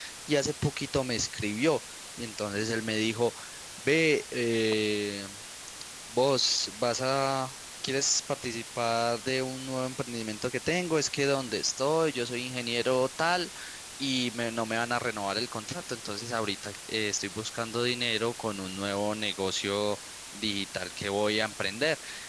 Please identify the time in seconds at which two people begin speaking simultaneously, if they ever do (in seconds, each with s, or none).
none